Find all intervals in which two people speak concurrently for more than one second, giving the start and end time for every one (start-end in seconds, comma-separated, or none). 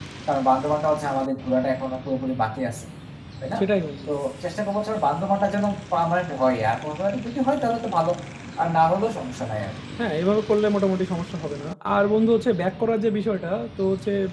none